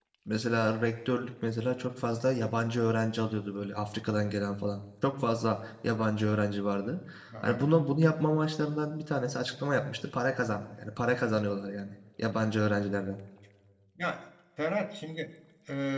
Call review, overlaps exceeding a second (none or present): none